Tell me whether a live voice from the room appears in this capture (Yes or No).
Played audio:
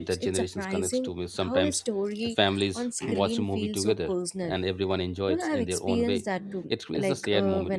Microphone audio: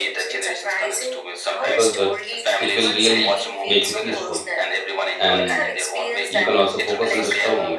Yes